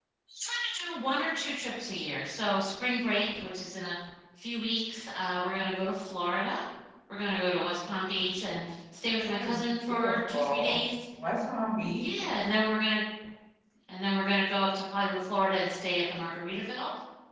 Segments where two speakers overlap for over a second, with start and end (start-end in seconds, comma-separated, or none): 9.2-10.8